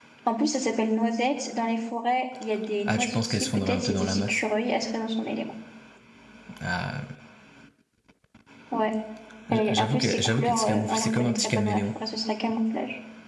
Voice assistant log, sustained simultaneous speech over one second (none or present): present